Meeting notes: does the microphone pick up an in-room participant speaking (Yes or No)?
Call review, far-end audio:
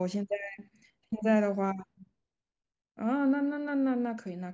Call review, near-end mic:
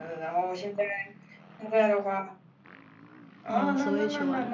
Yes